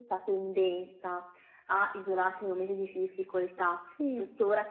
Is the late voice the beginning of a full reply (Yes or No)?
No